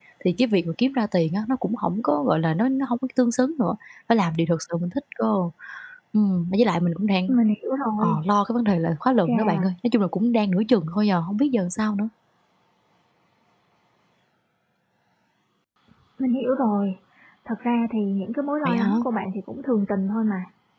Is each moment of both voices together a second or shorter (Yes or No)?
Yes